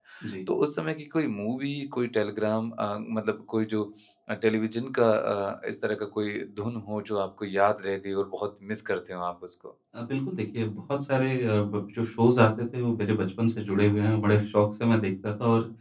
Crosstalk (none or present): none